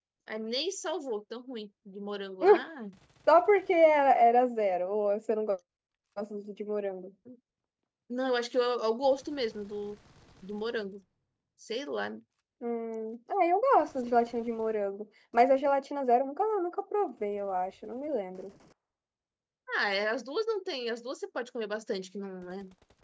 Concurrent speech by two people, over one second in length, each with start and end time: none

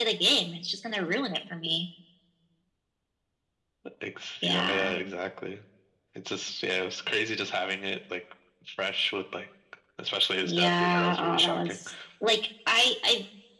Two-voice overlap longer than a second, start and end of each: 10.4-11.8

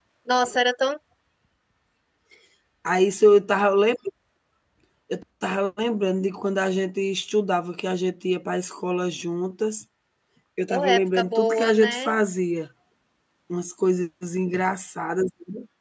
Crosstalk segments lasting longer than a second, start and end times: 10.7-12.2

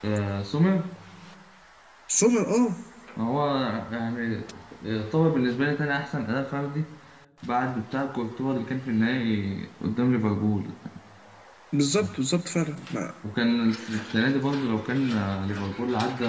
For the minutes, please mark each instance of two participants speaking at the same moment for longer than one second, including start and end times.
none

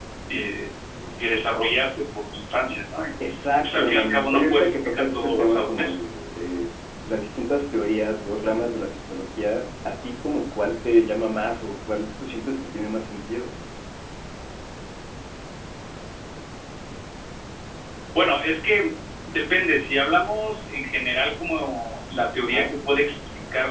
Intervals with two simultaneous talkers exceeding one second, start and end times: 3.6-5.9

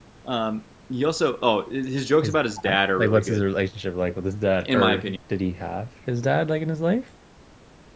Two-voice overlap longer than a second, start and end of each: 2.2-3.5

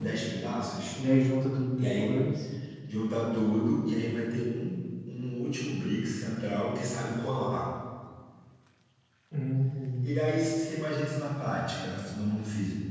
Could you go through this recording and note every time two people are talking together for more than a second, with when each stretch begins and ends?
none

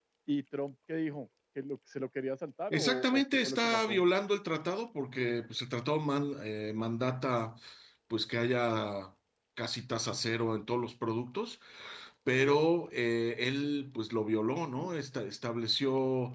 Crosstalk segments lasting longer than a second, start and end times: 2.7-4.0

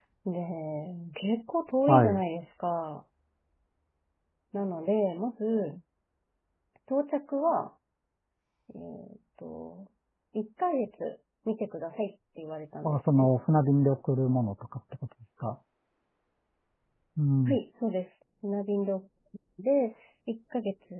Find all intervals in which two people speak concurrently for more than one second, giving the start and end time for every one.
none

